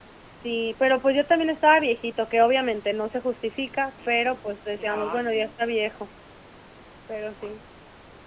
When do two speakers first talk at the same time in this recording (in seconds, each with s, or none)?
3.9 s